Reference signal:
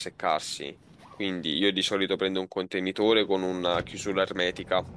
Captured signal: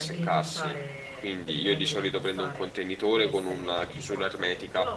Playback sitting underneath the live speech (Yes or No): No